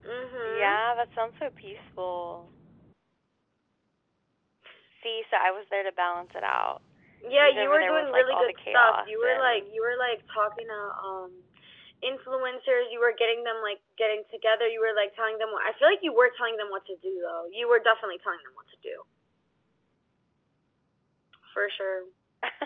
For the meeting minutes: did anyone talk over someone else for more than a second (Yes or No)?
Yes